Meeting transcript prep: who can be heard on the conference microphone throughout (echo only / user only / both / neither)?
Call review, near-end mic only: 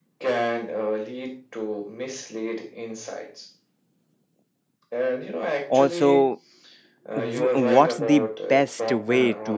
both